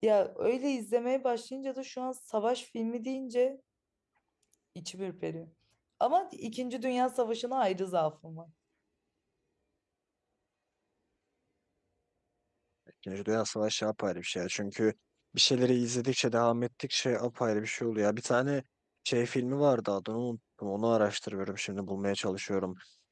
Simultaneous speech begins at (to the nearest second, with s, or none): none